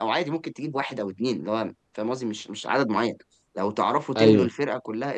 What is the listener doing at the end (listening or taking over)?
listening